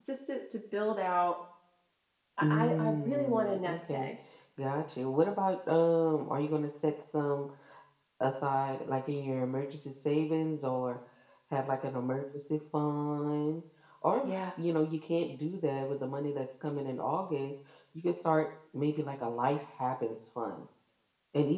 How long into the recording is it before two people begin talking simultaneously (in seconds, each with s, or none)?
2.4 s